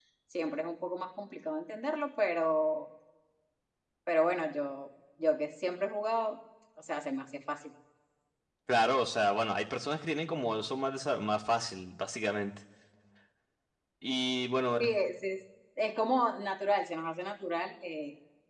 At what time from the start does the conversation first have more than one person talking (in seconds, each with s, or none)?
none